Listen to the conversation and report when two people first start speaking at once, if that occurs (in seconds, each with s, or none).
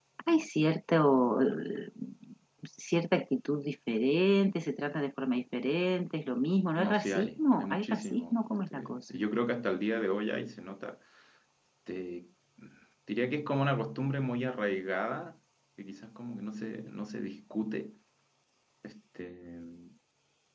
6.8 s